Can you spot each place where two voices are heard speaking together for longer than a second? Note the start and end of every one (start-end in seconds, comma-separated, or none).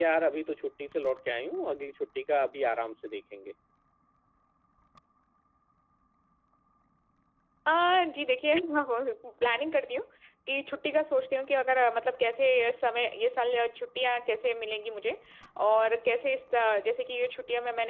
none